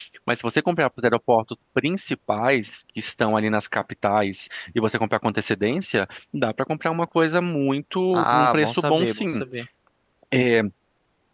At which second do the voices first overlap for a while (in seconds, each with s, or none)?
8.1 s